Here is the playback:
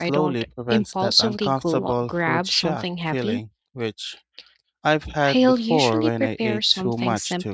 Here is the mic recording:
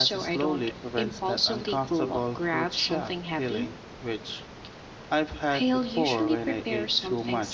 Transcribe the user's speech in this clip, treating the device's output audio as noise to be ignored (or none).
none